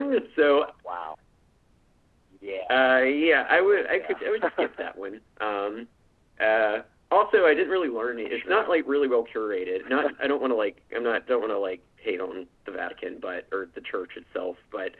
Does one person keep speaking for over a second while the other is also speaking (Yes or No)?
Yes